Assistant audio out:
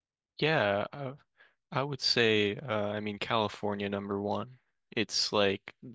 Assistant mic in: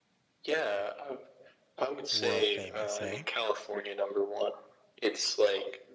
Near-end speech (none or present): present